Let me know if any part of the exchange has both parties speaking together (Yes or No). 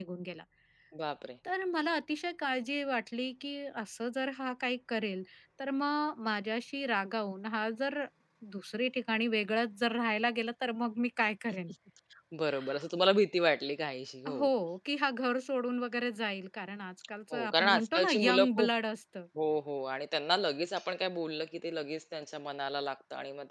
Yes